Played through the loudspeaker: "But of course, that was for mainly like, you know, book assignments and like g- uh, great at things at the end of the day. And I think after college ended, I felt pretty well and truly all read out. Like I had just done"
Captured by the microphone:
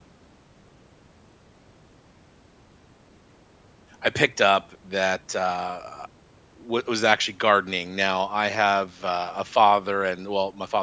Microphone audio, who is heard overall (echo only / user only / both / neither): user only